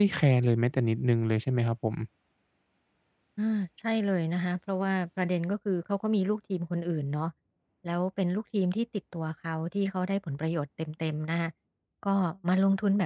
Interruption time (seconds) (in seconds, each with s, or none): none